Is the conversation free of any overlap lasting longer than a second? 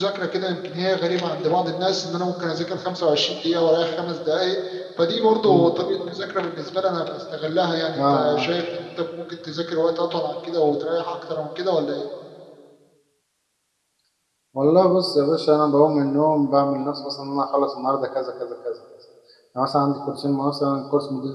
Yes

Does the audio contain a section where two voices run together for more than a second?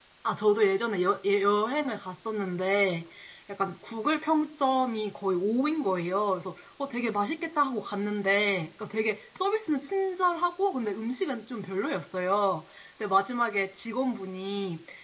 No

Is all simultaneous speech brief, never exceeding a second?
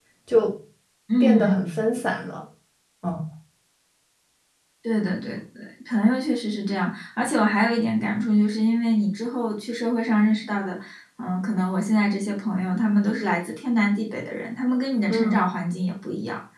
Yes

